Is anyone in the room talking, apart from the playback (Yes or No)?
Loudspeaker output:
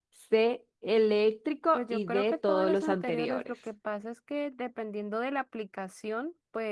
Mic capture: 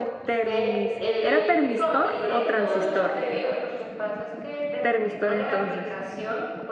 Yes